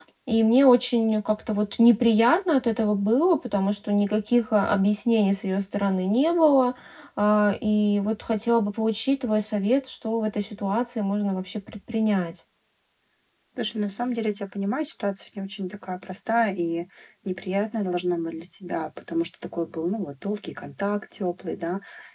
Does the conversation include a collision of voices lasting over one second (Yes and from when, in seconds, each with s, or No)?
No